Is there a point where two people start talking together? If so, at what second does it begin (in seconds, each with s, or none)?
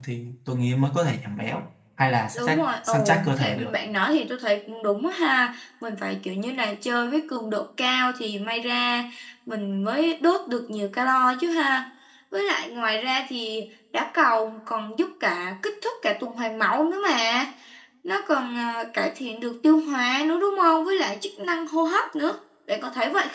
2.3 s